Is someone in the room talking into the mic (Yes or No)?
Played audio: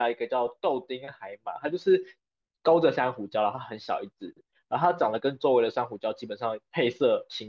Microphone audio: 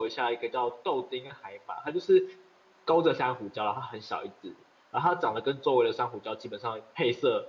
No